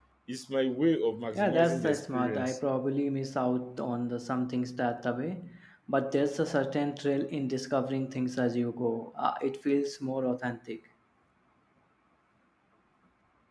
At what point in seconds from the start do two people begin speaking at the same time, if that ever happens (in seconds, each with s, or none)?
1.3 s